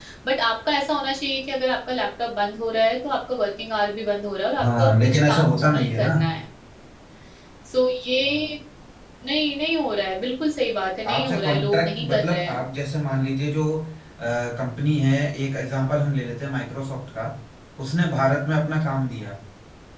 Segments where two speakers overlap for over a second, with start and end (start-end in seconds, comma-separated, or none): 4.6-6.2, 11.1-12.6